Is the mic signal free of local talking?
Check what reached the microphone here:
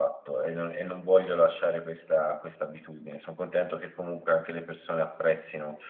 No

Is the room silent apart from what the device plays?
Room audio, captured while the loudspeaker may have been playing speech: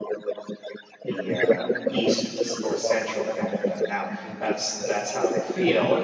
No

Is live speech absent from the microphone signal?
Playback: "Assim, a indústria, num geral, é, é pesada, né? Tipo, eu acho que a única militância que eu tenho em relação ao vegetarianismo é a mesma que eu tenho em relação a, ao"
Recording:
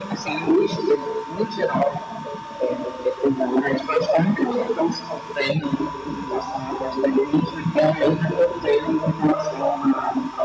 Yes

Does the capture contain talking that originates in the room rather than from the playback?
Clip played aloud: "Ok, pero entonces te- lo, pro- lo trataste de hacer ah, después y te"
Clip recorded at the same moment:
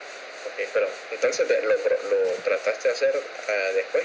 No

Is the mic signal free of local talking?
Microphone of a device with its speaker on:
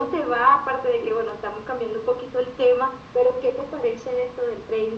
Yes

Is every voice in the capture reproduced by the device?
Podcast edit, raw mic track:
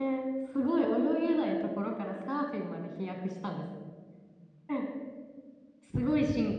No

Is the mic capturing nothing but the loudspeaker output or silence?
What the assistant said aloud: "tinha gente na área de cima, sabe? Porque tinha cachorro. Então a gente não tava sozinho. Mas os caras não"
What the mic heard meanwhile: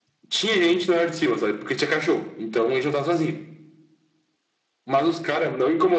Yes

